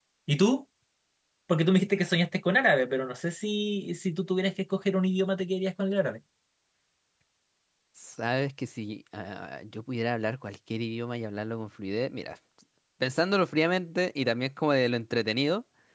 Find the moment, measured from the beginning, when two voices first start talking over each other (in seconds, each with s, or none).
none